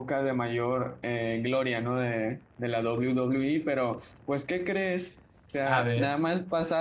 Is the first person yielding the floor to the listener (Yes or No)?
No